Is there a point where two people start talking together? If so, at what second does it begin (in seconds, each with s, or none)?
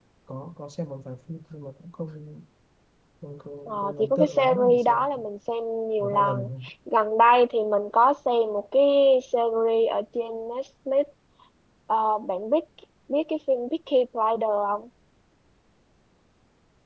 3.7 s